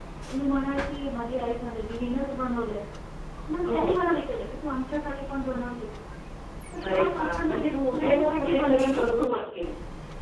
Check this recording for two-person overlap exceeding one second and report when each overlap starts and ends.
6.9-9.3

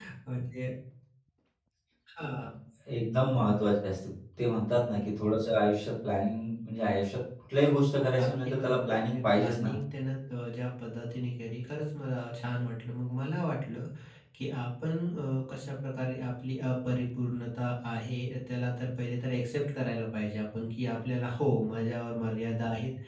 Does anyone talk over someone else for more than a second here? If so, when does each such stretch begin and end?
8.2-9.7

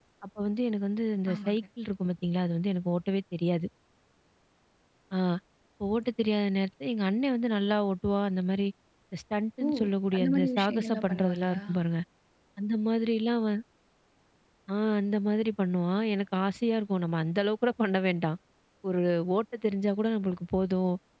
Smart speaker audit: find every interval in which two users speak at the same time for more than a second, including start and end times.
10.1-11.6

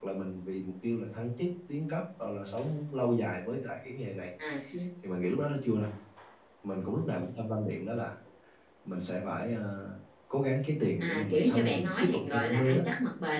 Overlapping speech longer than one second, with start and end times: 11.0-12.8

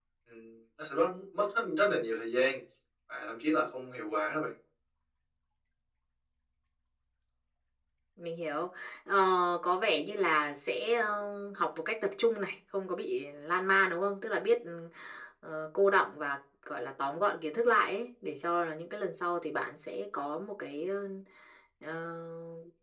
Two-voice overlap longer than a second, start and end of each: none

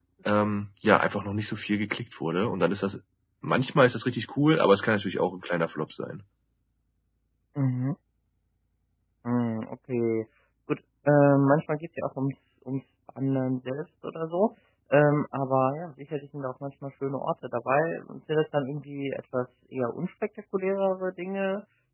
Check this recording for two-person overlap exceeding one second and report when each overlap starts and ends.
none

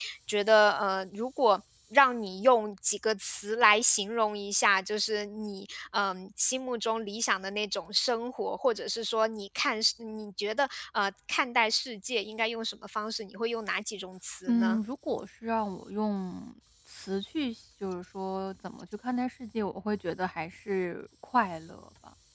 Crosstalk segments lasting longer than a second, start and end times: none

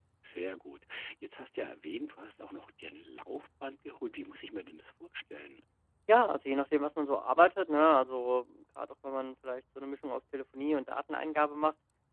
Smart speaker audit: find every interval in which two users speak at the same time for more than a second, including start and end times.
none

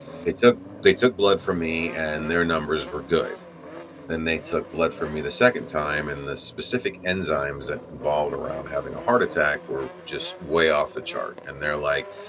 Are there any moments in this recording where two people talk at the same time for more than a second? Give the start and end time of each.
none

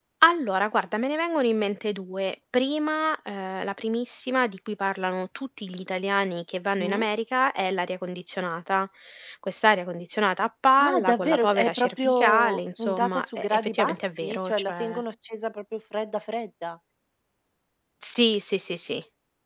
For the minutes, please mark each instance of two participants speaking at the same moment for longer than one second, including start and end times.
10.8-15.0

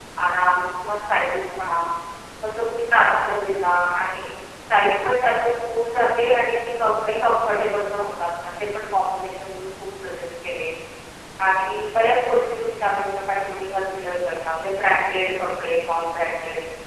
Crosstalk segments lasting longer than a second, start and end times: none

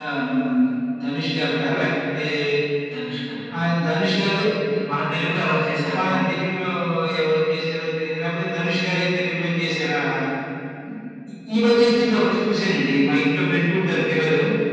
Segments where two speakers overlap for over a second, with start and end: none

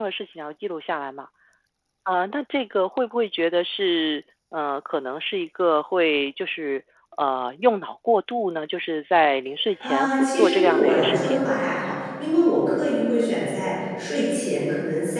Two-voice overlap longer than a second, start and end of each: 9.8-11.4

